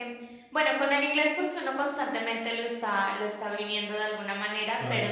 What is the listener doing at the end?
listening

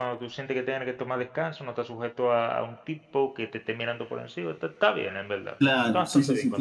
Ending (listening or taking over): taking over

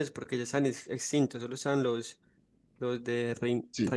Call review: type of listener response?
listening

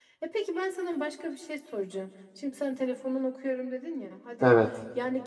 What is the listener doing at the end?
listening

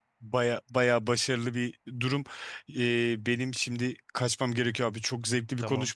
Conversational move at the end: listening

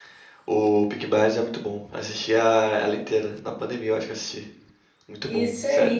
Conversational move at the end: taking over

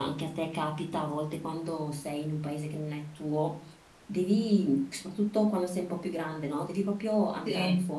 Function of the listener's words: listening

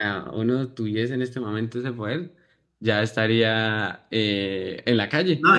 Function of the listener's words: taking over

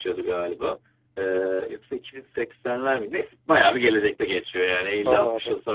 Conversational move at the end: listening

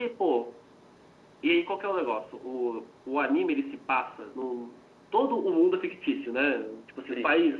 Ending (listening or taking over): listening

